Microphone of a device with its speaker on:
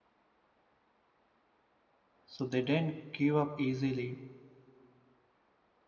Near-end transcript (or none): so they don't give up easily